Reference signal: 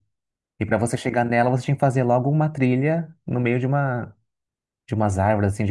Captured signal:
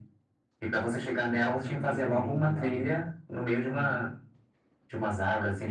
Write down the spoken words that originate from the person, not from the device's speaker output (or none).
pô, tem cada lugar lindo lá, viu? Uhum.